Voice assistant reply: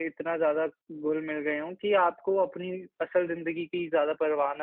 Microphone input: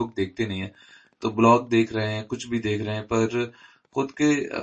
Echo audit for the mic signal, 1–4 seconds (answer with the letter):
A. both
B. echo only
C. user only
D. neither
C